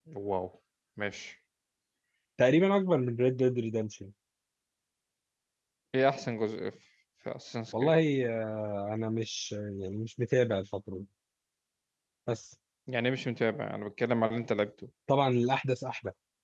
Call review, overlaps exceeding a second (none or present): none